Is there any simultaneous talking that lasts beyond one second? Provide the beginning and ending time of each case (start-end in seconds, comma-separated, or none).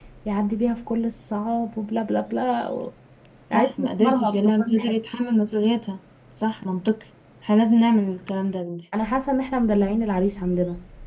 3.5-4.9